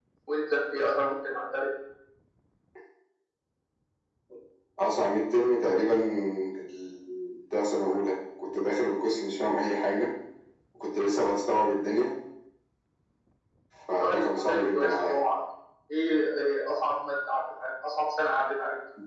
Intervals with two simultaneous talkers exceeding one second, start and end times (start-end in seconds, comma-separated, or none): 14.0-15.2